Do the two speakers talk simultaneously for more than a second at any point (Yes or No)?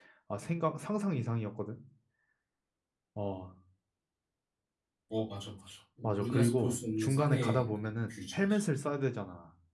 Yes